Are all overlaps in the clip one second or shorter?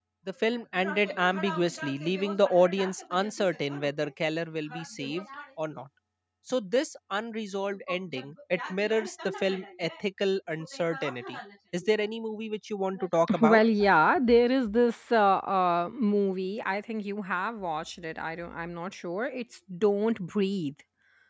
Yes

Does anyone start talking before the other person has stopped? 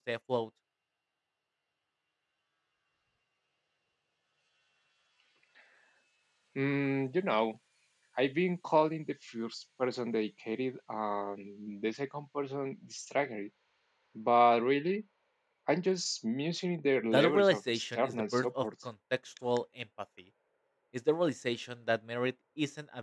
Yes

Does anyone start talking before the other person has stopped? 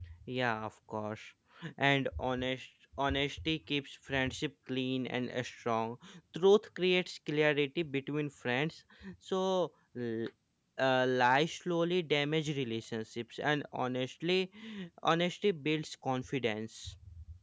No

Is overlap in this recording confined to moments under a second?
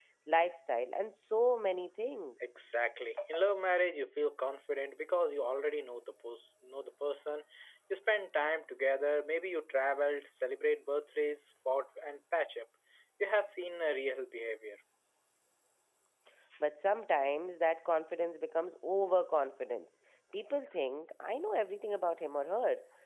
Yes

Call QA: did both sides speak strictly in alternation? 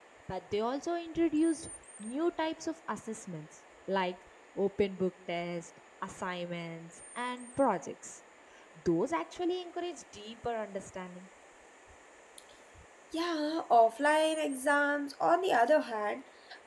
Yes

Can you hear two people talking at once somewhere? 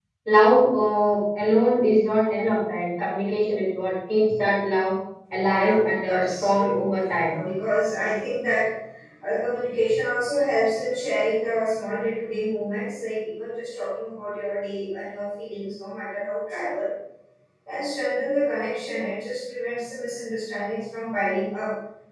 Yes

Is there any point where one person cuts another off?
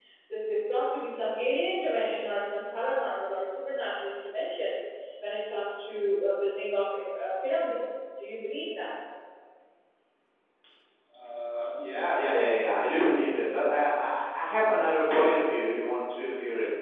No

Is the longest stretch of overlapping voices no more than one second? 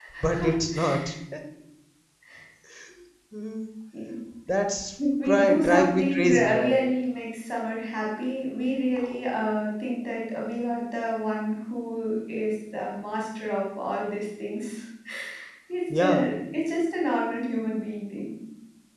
No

